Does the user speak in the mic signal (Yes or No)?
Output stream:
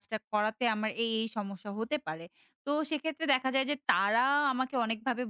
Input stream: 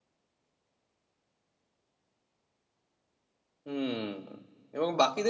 Yes